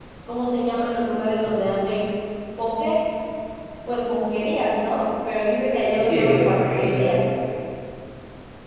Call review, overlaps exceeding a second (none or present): present